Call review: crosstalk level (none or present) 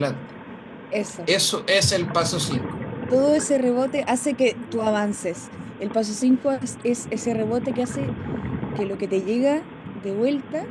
none